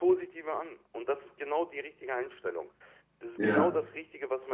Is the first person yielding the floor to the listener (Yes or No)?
No